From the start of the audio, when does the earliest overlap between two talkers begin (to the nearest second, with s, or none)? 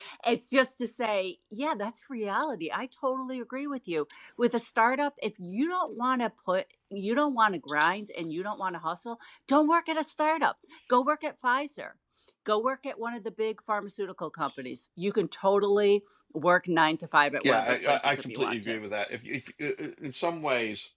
17 s